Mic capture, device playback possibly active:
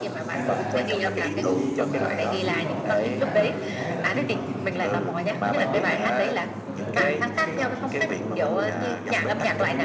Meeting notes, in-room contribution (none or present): present